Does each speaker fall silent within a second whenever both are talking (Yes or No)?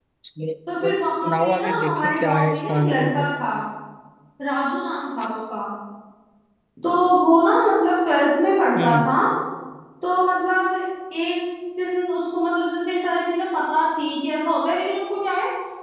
No